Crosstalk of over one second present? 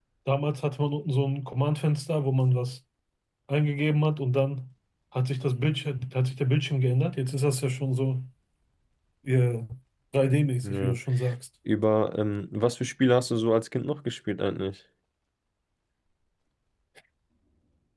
No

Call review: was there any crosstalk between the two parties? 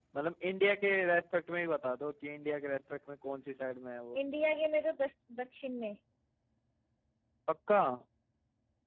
No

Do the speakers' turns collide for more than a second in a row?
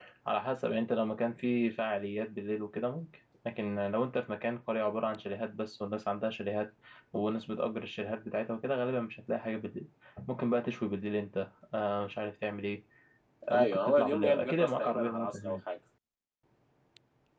Yes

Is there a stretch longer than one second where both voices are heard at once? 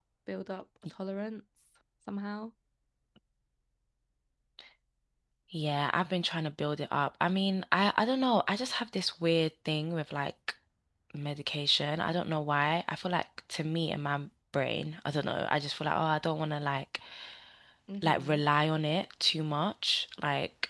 No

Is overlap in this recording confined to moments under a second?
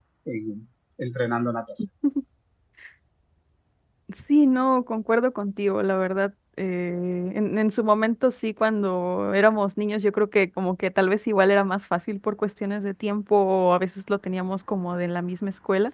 Yes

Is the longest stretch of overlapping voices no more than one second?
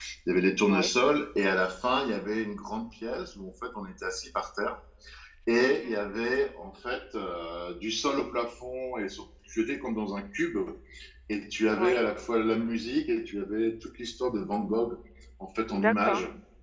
Yes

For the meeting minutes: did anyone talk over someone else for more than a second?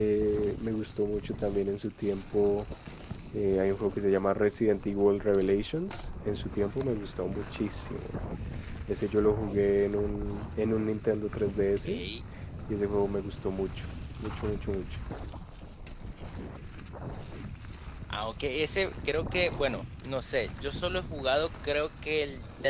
No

